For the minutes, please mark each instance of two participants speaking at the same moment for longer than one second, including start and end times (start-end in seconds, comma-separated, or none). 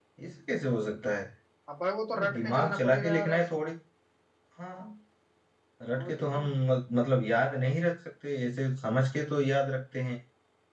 2.1-3.6